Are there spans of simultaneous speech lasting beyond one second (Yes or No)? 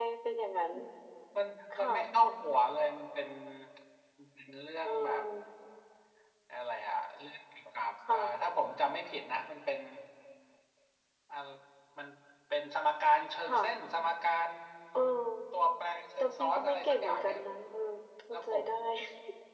Yes